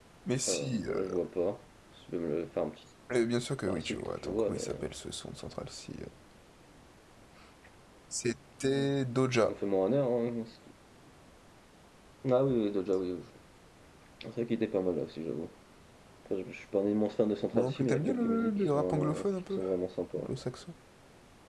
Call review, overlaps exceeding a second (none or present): present